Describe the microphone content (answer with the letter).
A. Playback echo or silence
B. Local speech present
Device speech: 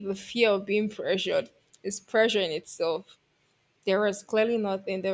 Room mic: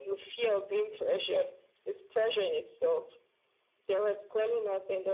A